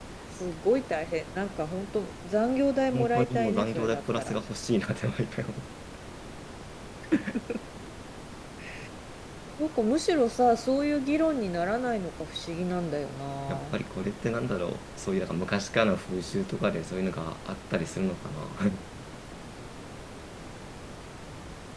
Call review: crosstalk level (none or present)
present